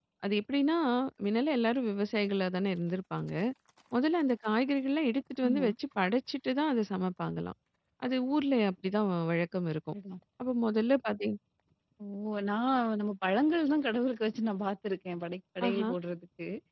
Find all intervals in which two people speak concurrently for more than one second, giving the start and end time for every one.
none

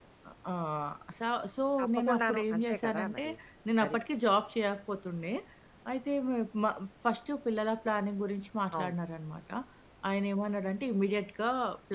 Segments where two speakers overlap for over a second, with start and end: 1.8-3.2

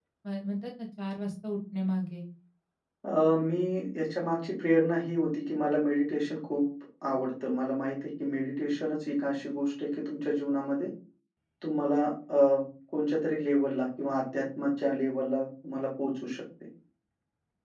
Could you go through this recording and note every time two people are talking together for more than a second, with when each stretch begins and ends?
none

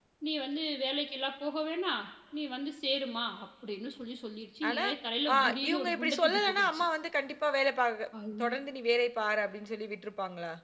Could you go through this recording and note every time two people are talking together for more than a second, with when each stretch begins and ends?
5.3-6.9

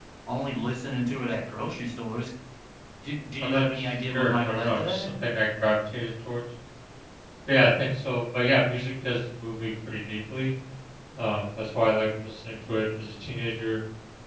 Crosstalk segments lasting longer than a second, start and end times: 3.4-5.1

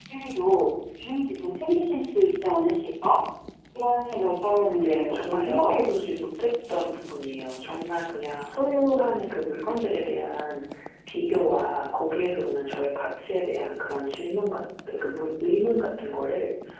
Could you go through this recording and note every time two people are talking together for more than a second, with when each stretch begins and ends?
4.4-5.7

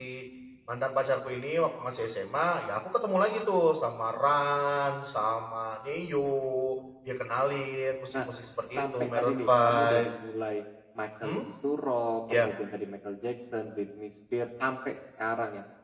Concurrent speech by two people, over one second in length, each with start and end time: 8.8-10.1

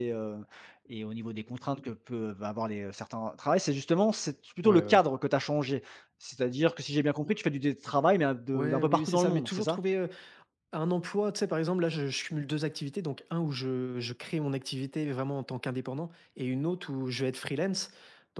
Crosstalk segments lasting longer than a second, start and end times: 8.5-9.8

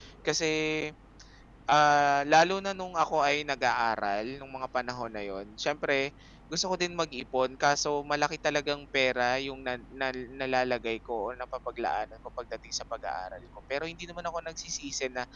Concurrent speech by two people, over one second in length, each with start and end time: none

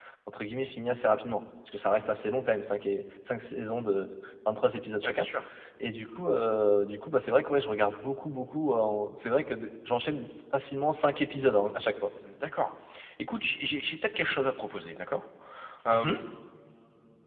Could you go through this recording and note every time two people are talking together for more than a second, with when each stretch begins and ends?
none

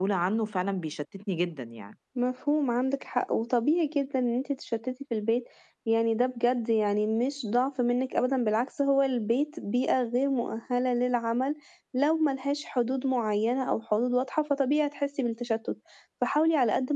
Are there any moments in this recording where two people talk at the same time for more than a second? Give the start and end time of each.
none

